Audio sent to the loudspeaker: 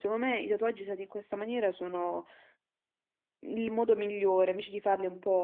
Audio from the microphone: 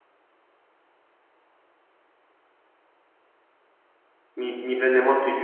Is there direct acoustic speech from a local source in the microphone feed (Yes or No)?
Yes